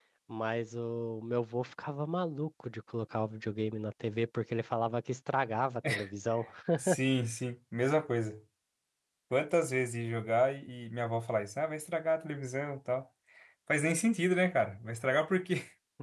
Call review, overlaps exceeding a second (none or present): none